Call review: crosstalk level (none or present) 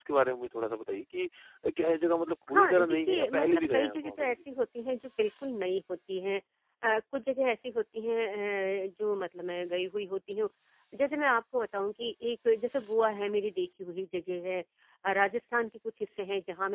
present